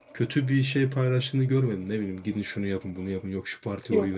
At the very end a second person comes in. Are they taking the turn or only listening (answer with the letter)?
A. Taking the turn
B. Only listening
B